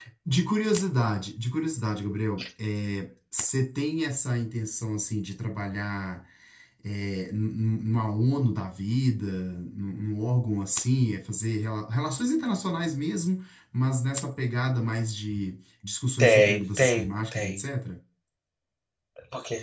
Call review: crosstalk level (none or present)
present